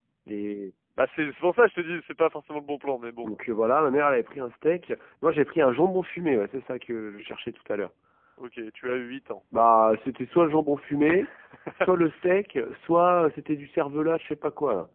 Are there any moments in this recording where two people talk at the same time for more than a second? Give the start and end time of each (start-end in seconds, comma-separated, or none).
none